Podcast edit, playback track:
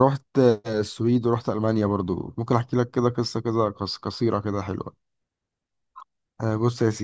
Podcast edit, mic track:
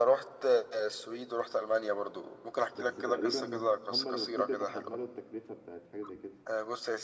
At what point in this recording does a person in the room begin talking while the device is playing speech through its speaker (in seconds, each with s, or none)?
2.7 s